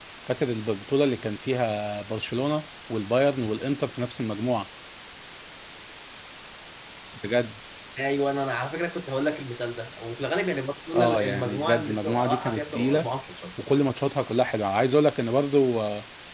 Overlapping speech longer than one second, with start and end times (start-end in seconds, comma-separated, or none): 10.9-13.1